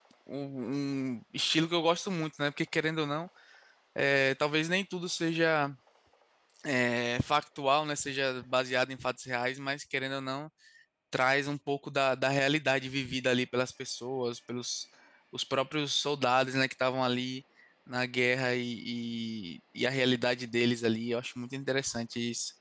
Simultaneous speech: No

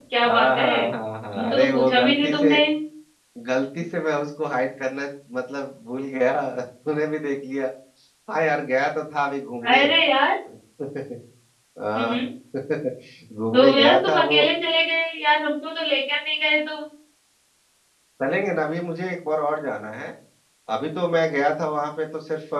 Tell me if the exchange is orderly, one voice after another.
No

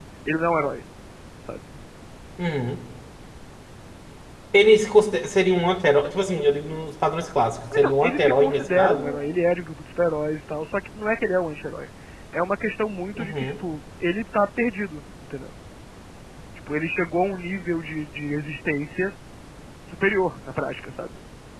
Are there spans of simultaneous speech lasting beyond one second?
Yes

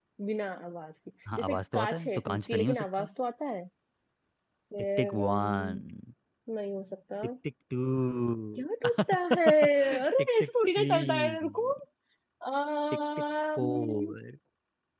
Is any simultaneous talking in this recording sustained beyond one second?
Yes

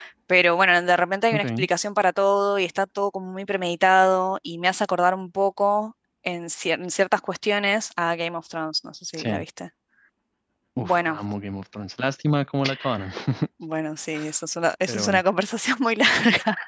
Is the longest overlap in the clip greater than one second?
No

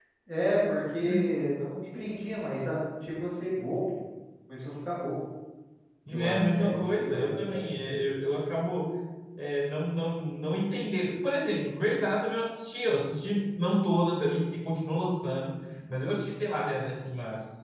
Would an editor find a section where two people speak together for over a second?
Yes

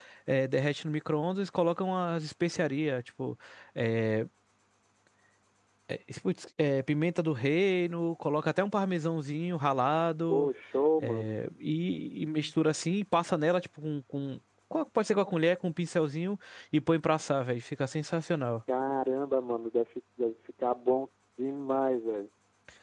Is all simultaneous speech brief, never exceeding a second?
Yes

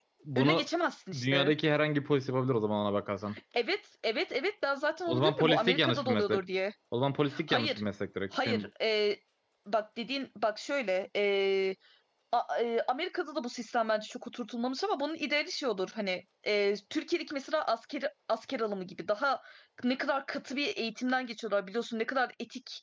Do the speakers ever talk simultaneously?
Yes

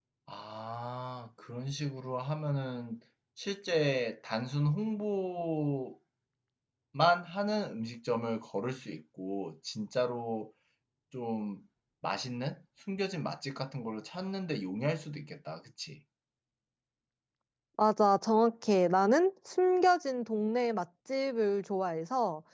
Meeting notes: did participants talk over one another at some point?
No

